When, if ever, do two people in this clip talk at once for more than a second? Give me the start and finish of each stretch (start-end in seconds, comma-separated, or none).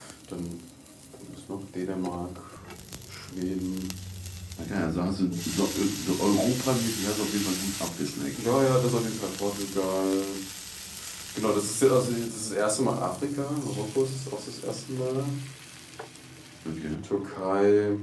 none